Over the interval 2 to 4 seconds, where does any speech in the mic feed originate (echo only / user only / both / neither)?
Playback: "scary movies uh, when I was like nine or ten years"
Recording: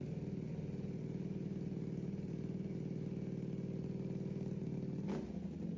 neither